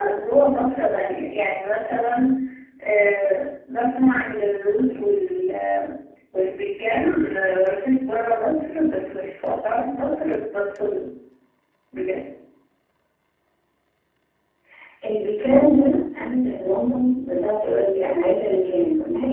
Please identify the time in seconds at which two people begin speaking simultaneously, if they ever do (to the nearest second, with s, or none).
none